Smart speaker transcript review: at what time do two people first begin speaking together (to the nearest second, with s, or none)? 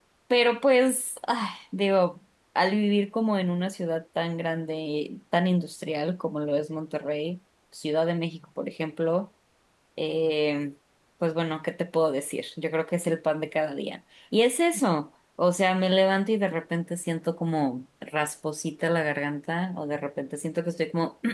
none